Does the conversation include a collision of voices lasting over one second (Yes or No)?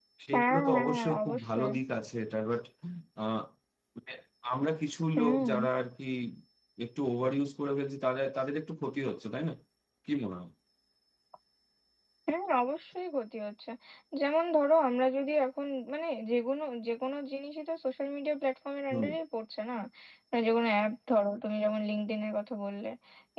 Yes